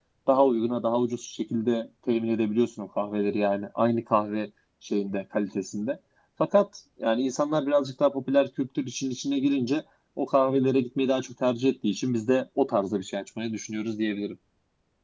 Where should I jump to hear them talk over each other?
none

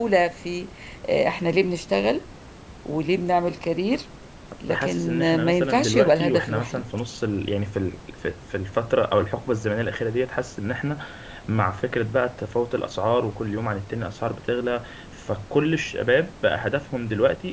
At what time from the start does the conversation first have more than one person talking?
4.7 s

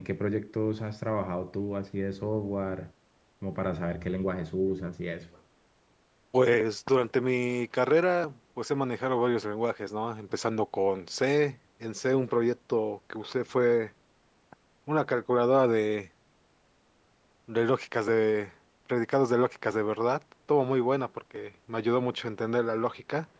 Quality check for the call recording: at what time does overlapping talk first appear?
none

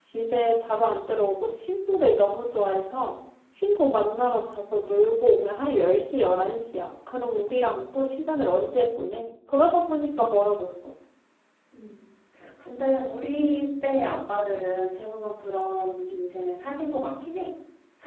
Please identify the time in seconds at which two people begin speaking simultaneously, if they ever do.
none

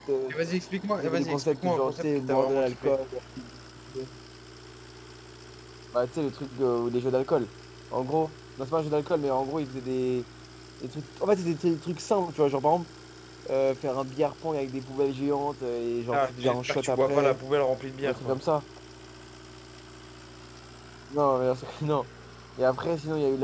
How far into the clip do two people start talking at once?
1.0 s

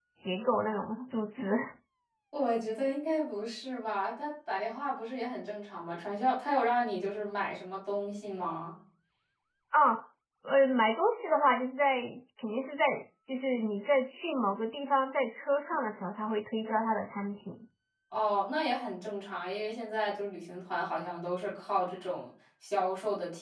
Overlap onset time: none

